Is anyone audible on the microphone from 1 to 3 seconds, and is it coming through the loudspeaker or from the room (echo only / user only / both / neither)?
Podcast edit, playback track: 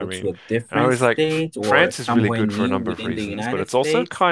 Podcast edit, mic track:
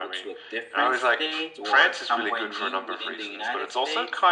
echo only